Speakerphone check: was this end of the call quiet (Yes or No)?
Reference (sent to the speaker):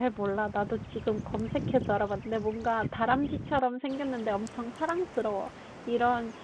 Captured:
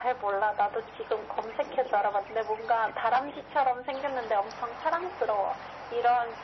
Yes